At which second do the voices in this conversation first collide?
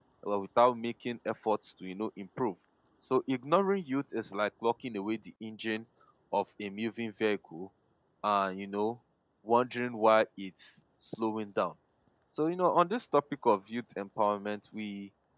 none

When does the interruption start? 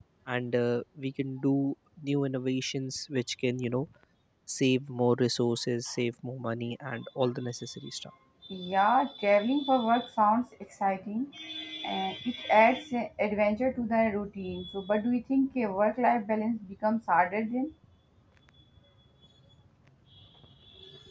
none

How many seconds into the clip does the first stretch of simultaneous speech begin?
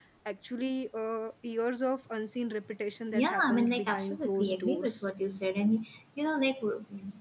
3.1 s

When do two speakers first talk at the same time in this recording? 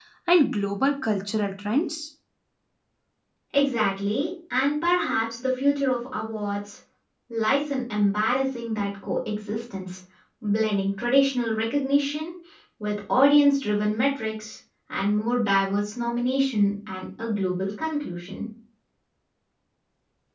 none

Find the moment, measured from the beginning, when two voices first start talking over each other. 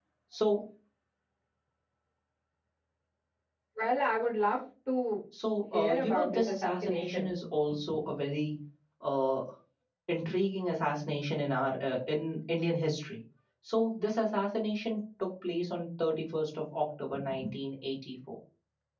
5.7 s

